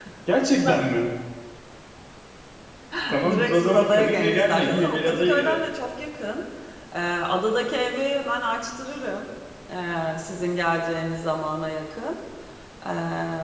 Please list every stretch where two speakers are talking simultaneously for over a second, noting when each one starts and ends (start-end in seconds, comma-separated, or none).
3.3-5.6